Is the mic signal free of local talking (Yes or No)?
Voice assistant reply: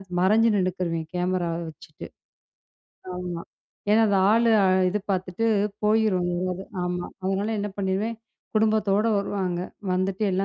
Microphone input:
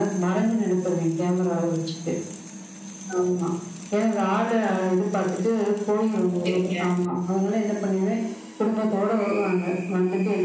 No